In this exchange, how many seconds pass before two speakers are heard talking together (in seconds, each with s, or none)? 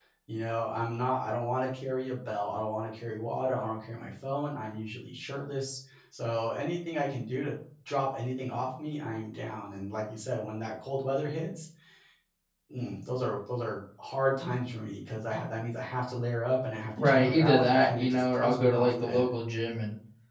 17.0 s